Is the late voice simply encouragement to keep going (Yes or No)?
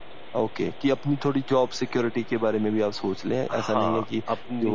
No